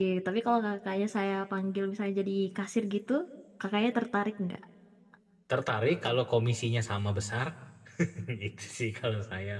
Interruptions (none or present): none